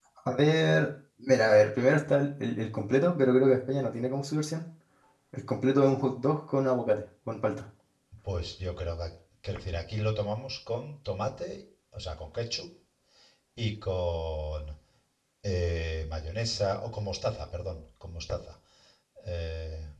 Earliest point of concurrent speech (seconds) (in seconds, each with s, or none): none